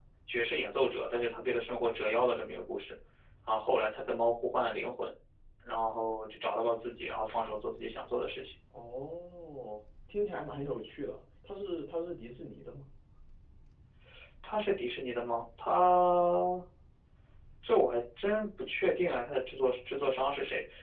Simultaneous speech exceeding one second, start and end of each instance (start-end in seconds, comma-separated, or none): none